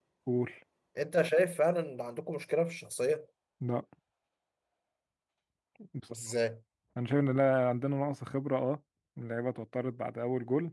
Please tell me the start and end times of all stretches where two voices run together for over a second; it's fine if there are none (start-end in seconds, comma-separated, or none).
none